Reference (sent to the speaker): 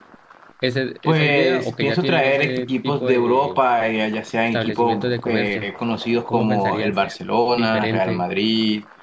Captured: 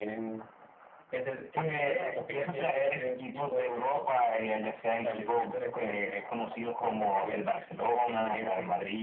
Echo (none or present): present